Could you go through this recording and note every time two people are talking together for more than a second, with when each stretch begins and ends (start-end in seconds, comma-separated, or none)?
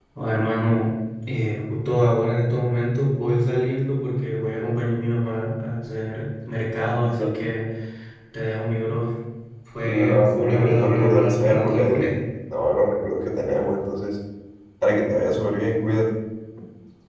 9.8-12.1